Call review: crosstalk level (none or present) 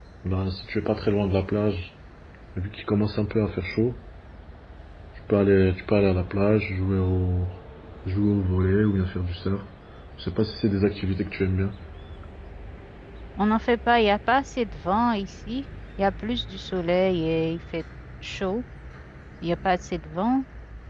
none